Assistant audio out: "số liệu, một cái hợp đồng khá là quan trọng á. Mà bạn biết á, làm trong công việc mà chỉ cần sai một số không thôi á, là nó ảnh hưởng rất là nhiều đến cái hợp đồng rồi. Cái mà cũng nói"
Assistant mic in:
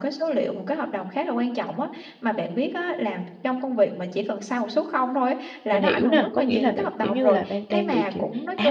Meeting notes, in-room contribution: present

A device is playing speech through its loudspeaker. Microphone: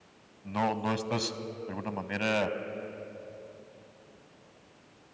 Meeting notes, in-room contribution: present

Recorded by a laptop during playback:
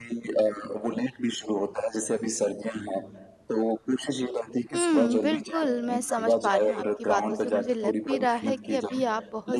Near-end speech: present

